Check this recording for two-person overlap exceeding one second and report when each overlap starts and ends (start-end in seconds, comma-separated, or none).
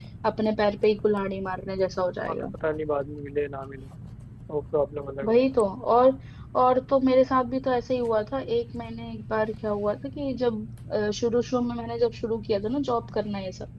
none